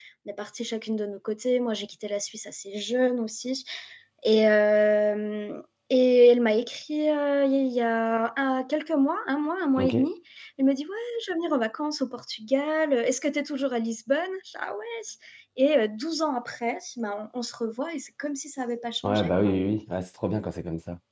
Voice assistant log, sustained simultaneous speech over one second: none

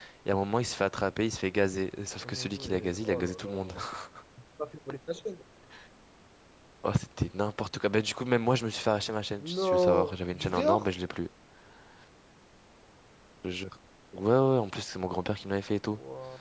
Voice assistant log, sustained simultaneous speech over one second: present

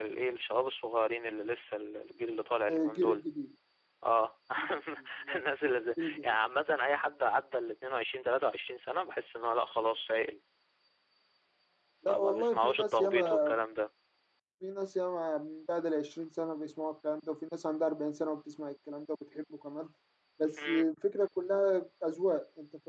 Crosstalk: present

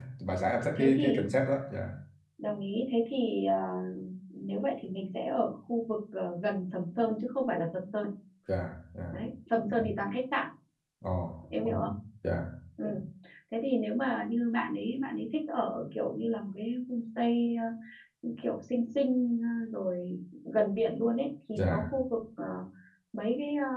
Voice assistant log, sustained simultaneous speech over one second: none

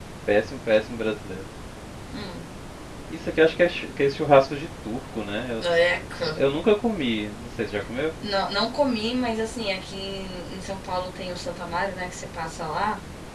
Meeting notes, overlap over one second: none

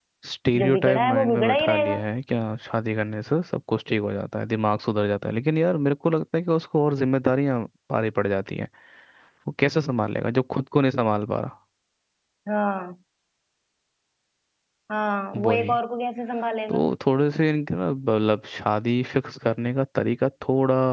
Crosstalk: present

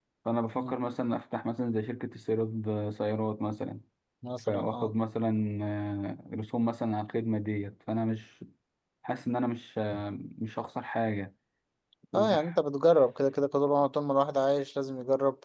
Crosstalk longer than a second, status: none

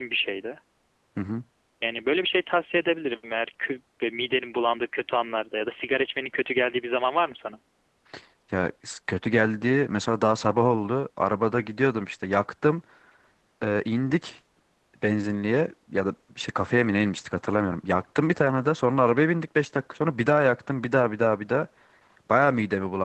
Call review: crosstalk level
none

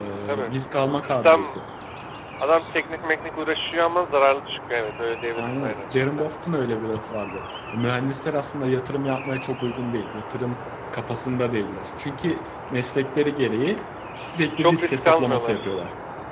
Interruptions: present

